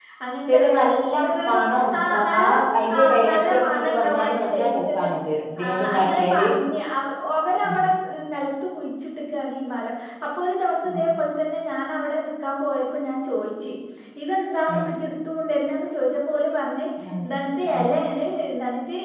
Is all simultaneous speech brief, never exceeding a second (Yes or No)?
No